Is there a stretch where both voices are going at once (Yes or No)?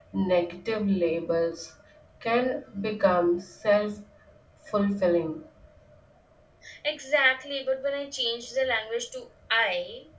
No